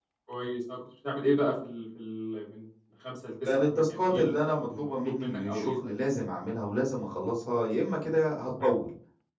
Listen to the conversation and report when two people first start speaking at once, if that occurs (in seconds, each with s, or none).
3.5 s